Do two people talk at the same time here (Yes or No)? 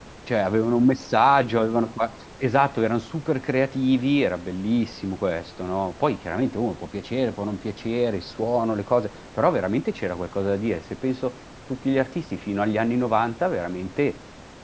No